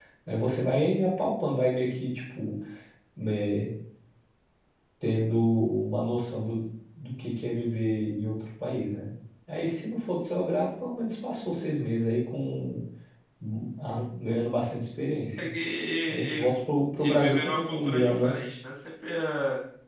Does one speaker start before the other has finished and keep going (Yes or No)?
Yes